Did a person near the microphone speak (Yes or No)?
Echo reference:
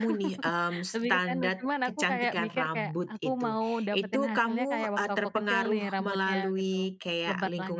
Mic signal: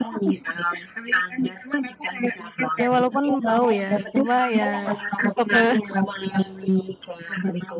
Yes